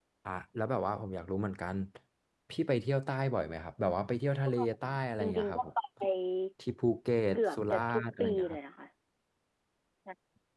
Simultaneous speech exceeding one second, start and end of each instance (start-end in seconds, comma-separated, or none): 7.3-8.6